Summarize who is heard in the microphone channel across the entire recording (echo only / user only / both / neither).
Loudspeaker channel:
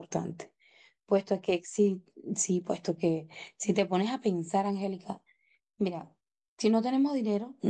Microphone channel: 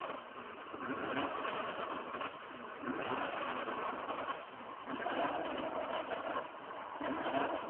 neither